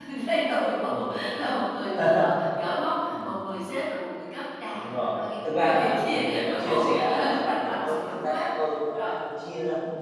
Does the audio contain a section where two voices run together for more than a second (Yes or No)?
Yes